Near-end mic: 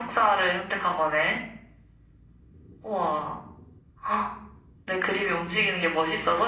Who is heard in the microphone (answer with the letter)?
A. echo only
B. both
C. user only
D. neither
A